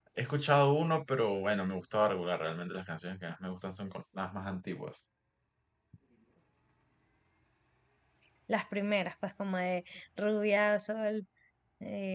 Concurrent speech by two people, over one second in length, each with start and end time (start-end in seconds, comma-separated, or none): none